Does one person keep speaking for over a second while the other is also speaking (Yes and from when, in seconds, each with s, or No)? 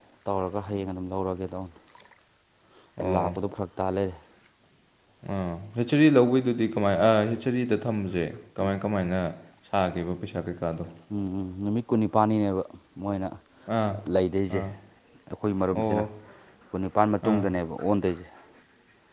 No